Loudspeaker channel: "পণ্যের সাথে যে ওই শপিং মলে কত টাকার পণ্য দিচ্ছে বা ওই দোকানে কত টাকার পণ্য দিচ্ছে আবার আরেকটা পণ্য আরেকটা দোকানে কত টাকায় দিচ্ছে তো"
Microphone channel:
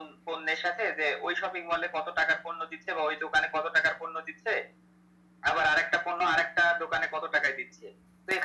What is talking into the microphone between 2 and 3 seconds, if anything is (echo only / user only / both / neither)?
echo only